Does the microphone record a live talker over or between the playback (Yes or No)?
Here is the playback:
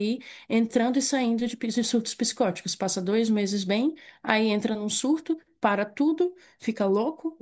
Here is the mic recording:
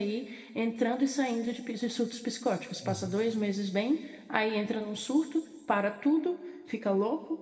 Yes